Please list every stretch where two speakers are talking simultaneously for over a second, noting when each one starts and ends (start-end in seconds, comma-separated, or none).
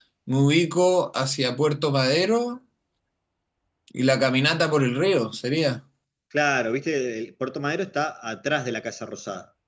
none